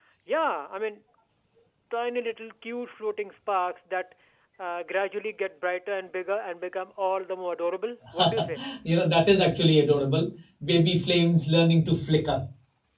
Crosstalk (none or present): none